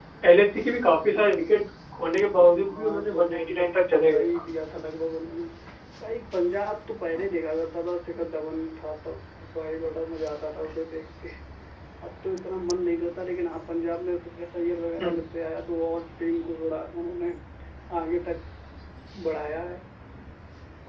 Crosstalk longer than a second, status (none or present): present